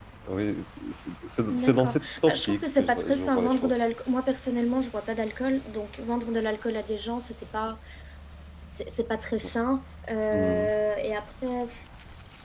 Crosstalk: present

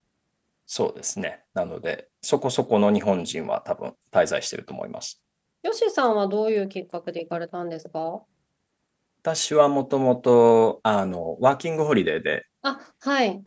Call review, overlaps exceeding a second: none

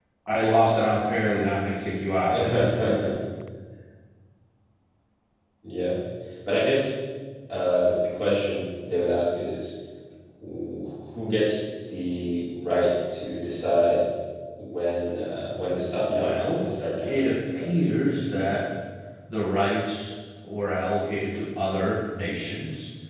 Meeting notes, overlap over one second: present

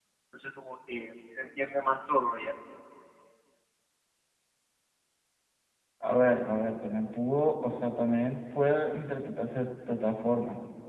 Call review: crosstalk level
none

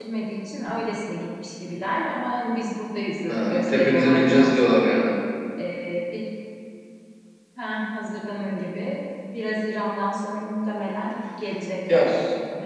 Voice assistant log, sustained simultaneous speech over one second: present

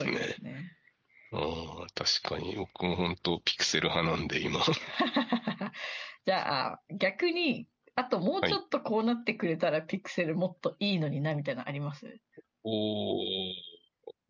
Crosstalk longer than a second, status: none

